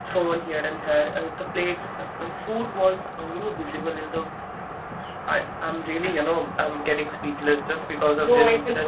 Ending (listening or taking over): taking over